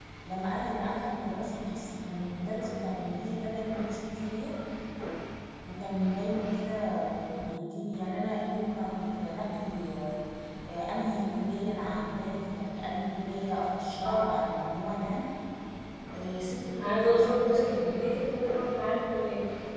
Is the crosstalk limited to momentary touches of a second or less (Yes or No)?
No